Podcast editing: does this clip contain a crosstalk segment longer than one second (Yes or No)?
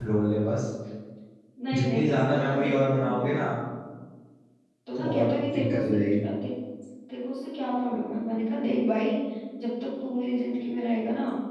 Yes